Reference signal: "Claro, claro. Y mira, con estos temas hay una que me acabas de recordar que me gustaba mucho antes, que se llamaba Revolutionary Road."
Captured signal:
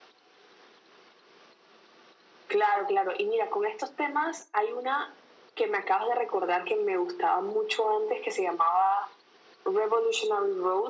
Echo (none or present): present